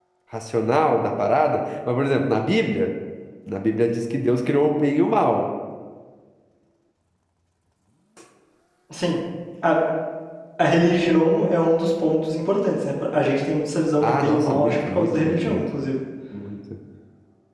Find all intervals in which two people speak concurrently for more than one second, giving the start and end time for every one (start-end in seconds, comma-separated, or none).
14.0-15.6